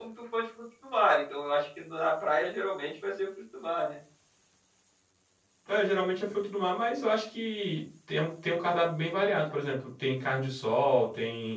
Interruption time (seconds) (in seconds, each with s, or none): none